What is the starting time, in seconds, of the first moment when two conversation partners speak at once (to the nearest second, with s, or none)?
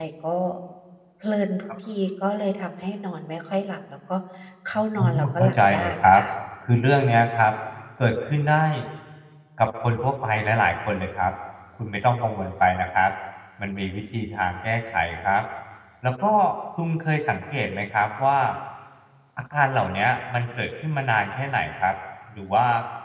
5 s